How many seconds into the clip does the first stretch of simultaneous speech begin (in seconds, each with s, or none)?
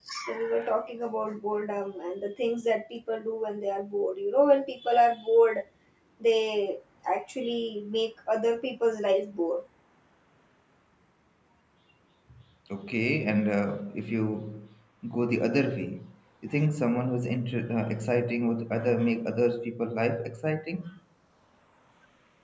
none